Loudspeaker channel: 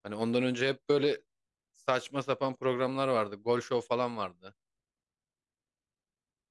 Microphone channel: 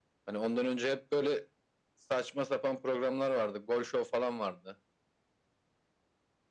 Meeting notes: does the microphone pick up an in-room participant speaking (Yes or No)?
No